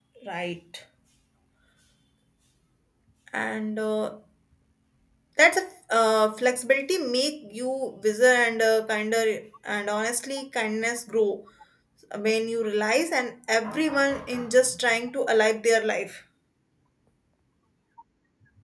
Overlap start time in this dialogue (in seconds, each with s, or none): none